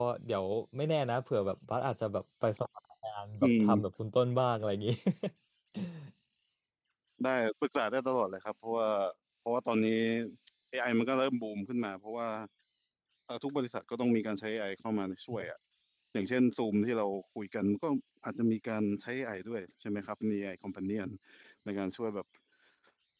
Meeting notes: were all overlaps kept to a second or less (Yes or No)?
Yes